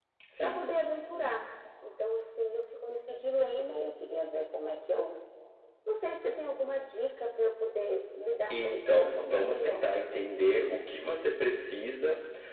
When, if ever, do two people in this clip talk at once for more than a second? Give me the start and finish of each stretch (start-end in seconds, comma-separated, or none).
8.5-9.8